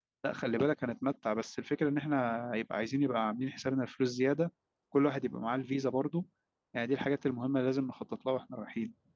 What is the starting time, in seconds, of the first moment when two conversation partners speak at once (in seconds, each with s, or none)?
none